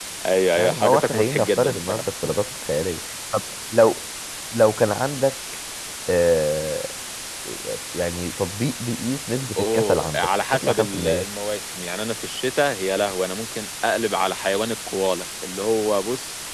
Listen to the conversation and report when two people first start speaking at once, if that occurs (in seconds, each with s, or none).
0.6 s